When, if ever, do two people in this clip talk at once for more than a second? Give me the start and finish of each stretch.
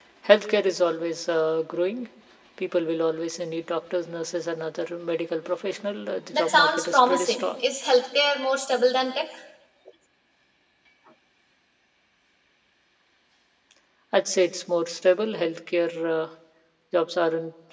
6.3-7.6

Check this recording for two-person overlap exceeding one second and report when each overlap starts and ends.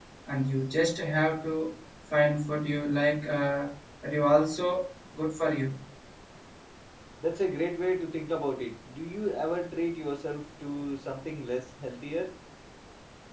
none

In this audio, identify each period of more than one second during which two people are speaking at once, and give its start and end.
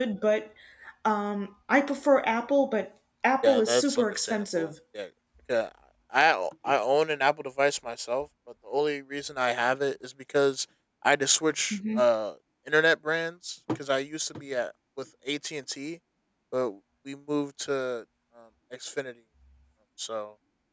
3.4-4.7

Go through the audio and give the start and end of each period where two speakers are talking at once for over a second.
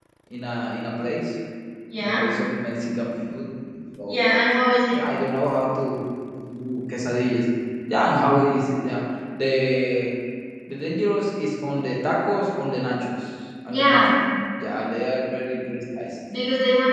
none

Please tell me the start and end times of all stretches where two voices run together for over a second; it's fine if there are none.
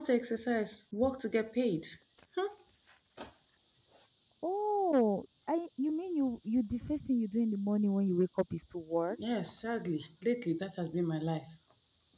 none

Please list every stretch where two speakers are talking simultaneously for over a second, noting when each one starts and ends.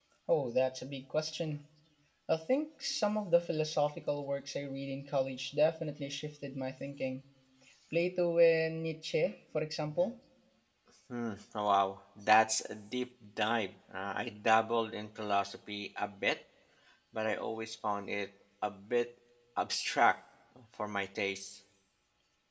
none

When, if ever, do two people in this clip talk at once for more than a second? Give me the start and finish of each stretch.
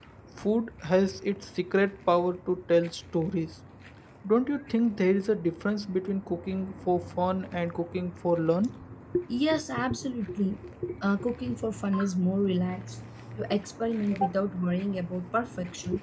none

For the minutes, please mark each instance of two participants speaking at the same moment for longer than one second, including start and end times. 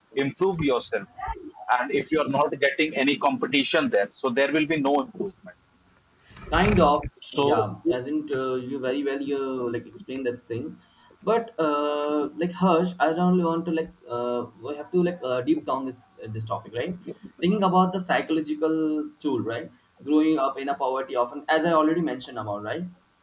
none

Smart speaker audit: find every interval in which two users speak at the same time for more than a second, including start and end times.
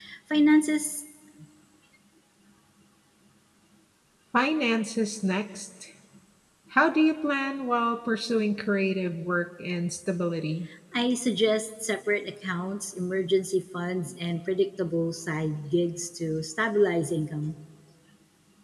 none

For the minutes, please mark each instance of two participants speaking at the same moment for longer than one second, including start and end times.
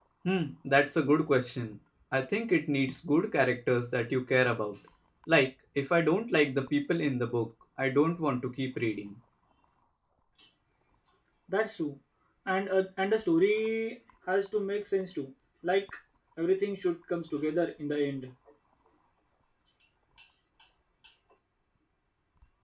none

